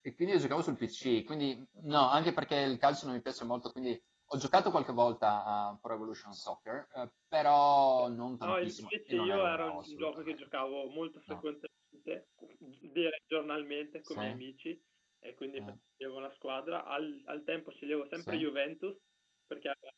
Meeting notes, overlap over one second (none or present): present